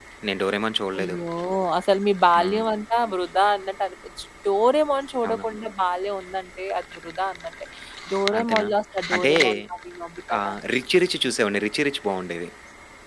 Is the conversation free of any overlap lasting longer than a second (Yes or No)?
Yes